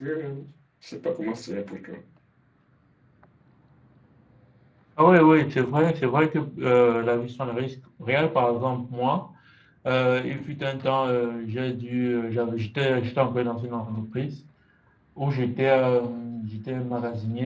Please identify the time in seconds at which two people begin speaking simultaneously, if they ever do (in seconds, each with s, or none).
none